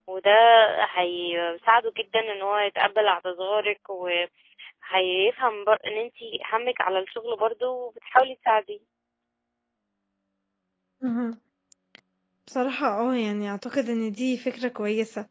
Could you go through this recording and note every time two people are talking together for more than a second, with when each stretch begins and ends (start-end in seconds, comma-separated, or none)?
none